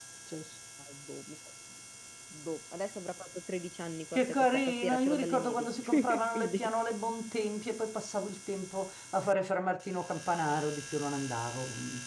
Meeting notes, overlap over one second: present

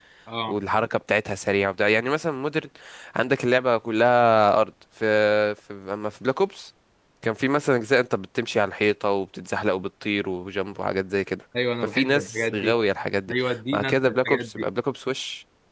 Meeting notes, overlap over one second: present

